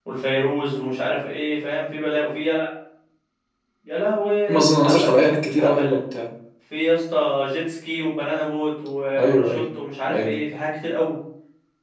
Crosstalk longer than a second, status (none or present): present